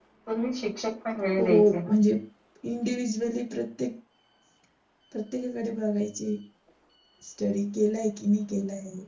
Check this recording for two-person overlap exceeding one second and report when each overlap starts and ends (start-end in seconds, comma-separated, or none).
none